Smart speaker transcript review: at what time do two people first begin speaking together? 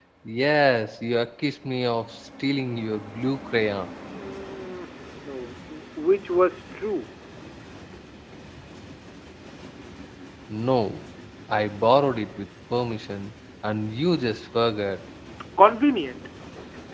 none

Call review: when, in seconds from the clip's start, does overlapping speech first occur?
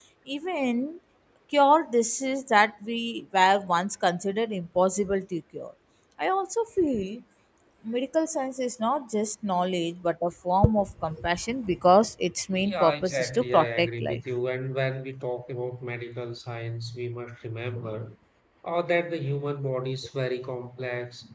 12.6 s

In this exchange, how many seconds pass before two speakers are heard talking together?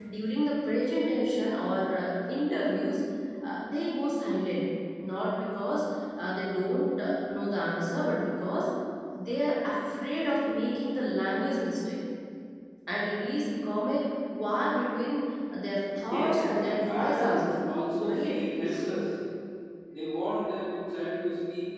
16.1 s

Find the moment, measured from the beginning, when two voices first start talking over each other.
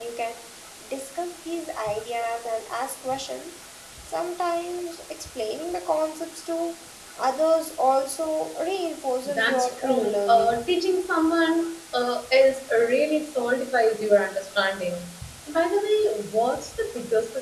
9.2 s

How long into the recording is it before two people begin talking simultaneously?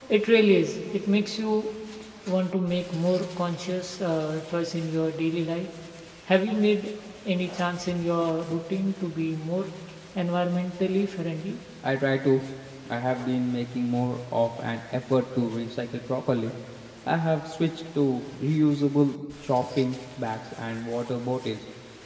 none

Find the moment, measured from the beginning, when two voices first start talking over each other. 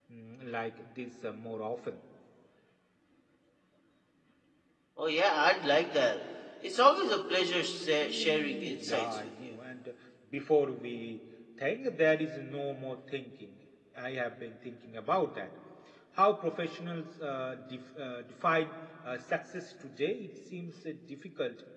8.0 s

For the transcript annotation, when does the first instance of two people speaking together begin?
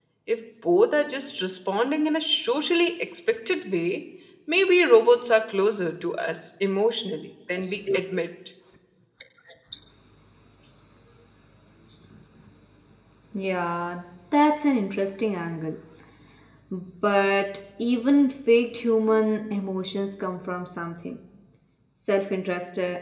none

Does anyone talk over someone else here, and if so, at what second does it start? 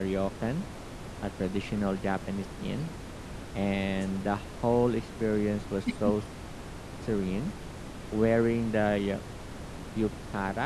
none

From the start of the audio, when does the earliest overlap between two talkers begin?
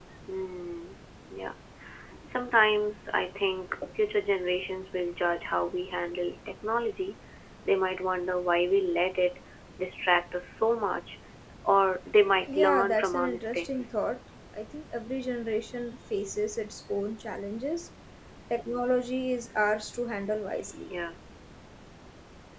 12.5 s

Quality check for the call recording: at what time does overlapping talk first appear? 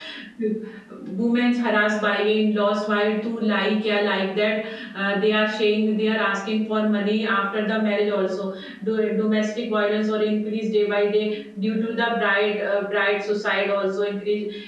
none

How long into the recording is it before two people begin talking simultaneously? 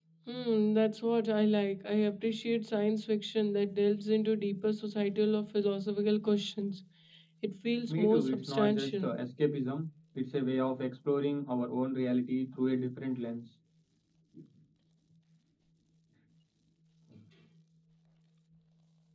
7.9 s

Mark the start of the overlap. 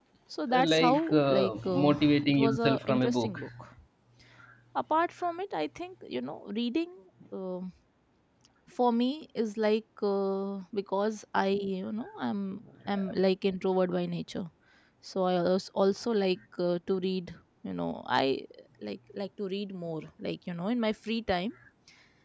0.5 s

